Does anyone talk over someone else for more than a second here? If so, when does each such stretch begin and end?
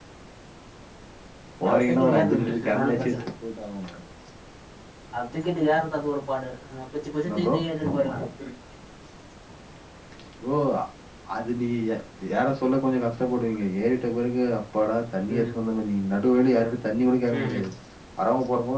1.7-3.2

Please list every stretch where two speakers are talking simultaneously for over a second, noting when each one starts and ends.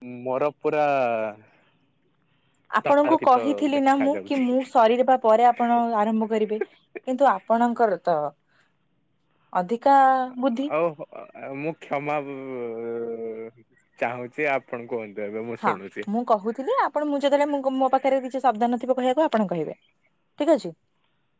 2.9-4.5

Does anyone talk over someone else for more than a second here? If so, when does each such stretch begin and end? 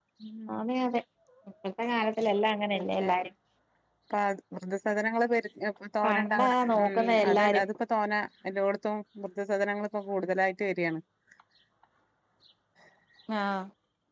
6.0-7.6

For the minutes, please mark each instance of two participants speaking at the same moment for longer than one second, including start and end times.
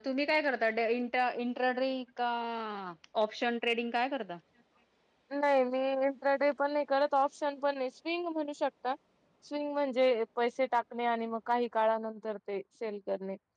none

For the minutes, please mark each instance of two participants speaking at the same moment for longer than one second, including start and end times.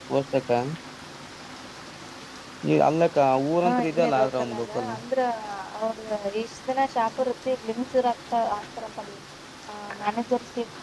3.6-4.9

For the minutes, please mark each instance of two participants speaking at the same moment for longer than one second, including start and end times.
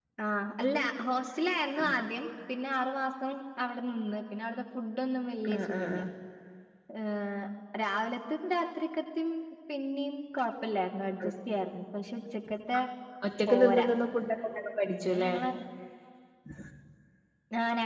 none

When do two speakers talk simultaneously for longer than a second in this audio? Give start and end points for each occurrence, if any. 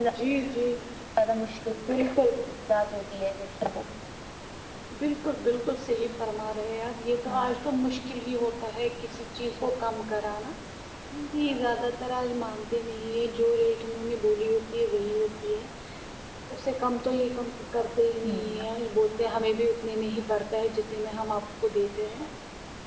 none

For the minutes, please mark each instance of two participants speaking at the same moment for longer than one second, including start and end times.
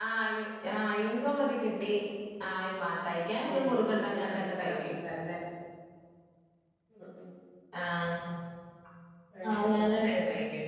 3.5-4.9

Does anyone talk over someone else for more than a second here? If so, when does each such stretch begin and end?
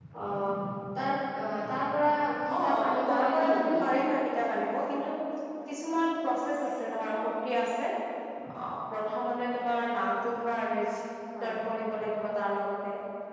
2.6-3.8

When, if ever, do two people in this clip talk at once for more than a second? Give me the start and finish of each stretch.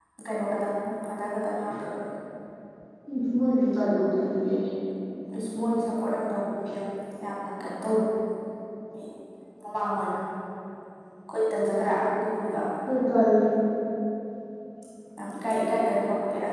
none

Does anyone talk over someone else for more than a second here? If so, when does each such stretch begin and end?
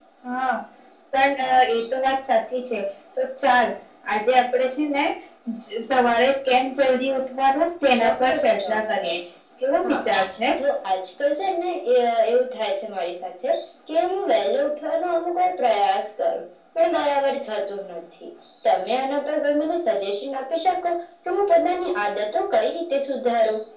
7.9-9.2

